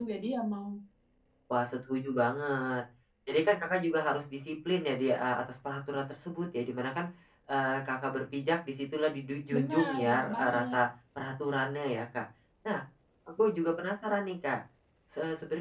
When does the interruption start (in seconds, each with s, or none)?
9.5 s